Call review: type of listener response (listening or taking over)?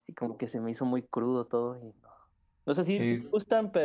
listening